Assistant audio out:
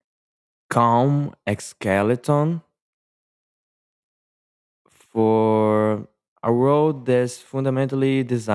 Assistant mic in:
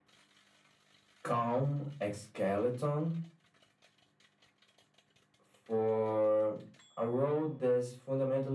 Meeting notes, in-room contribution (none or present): none